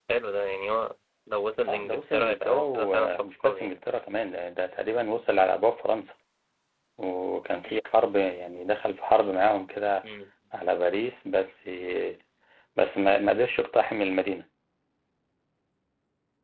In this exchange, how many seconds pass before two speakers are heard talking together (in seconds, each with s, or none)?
1.7 s